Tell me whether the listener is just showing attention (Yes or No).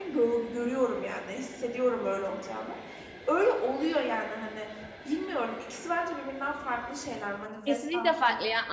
No